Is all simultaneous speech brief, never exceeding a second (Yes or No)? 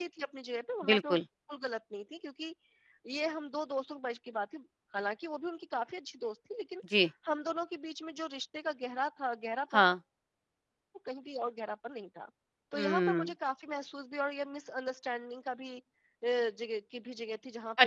Yes